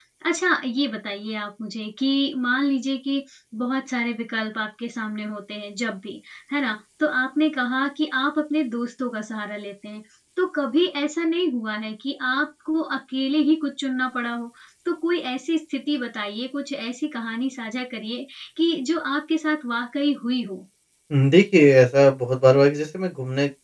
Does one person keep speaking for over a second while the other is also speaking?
No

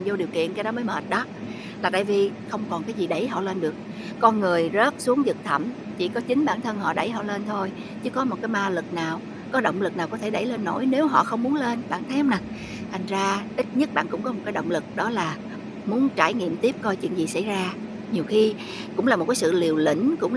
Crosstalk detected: No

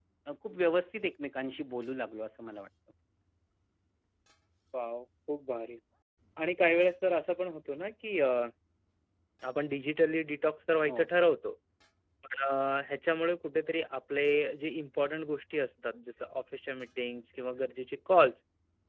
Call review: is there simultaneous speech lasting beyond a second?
No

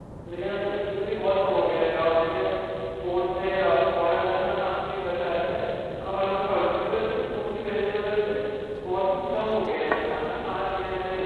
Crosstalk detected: No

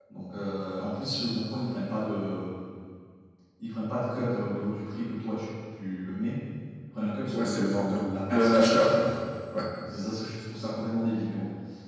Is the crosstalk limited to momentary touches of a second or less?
No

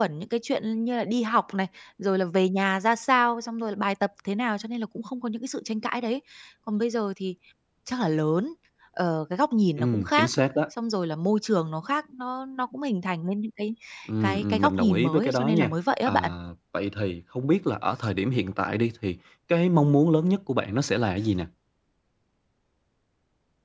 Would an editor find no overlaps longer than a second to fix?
No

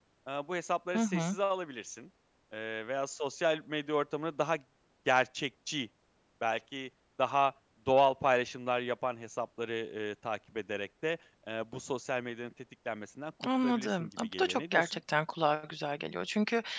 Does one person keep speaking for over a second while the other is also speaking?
Yes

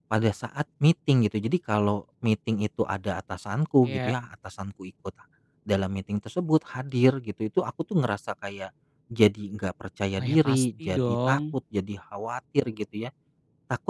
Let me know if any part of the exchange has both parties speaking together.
Yes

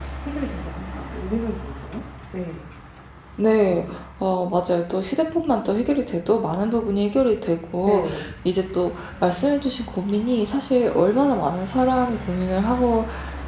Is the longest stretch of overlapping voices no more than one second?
Yes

